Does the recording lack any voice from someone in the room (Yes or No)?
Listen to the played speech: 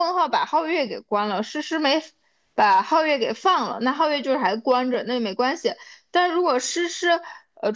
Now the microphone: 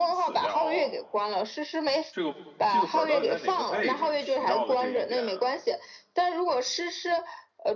No